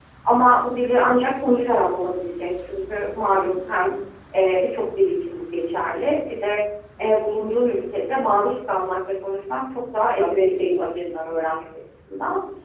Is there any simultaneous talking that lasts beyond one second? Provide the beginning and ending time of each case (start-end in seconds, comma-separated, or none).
10.2-11.6